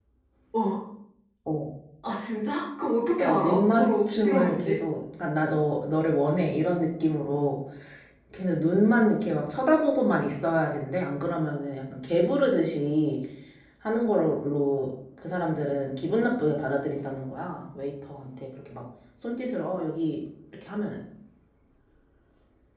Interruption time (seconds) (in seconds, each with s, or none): 3.2 s